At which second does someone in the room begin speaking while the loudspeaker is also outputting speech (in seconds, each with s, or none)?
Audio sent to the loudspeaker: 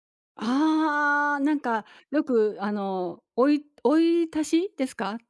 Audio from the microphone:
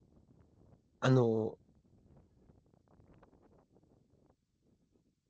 1.0 s